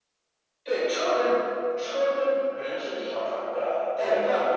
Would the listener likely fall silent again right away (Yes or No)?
Yes